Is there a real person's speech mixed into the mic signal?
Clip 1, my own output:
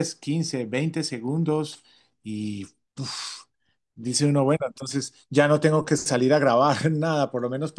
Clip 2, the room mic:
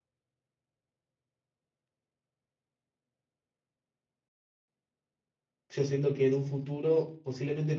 Yes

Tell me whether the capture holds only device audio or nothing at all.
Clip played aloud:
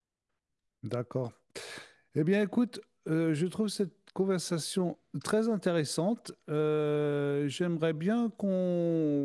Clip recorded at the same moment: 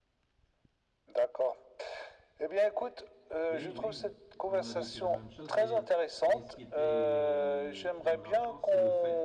No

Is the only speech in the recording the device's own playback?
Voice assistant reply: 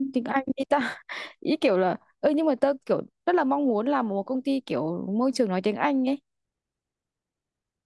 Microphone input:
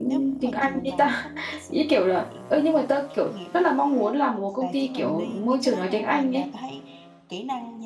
No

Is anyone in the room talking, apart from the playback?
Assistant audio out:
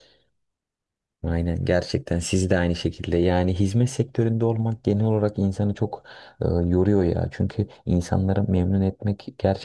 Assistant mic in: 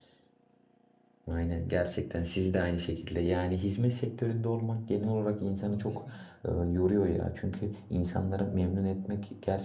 Yes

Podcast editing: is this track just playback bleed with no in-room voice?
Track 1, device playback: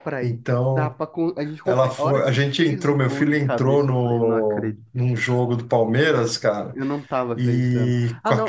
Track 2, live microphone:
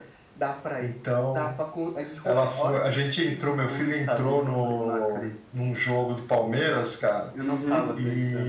No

